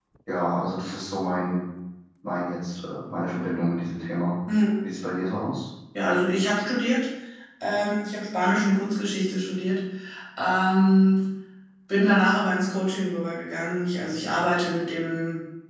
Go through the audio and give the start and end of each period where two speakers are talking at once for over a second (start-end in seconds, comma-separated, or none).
none